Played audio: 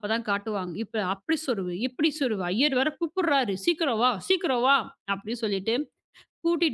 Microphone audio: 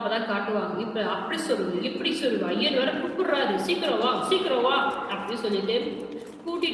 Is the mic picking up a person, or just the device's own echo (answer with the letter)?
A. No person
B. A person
A